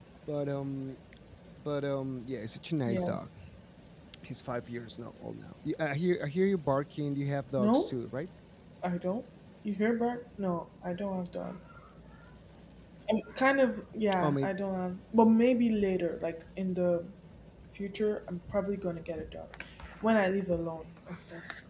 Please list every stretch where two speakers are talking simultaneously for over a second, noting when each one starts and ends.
none

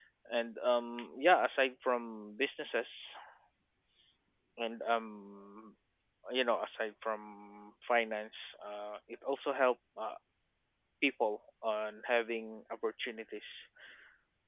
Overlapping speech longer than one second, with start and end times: none

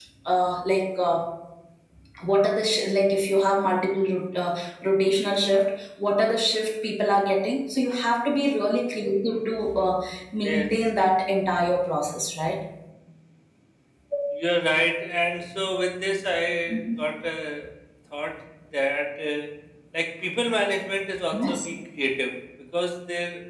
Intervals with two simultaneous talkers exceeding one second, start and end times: none

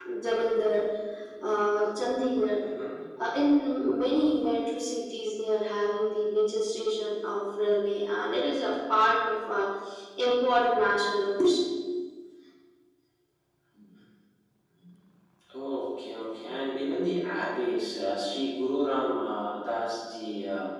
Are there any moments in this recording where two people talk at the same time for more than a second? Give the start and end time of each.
none

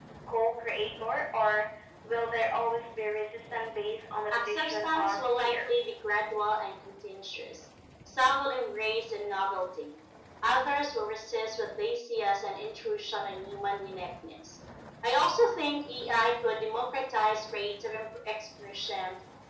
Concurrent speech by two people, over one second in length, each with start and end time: 4.3-5.6

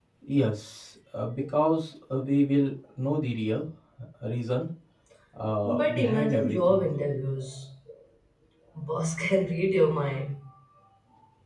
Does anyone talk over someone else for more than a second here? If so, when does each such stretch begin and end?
5.7-6.9

